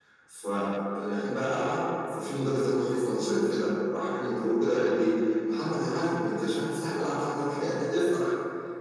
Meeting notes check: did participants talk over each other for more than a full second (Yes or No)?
No